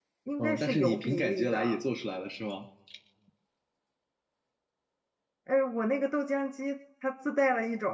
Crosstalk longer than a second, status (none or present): present